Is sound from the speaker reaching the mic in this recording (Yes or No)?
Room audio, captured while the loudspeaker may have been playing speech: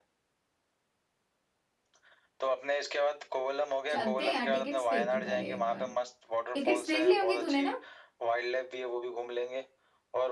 Yes